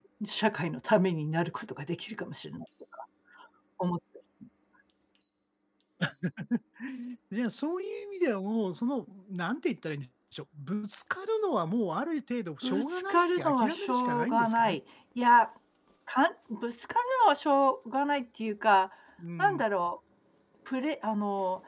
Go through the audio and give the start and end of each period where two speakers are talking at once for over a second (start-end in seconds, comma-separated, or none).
12.6-14.8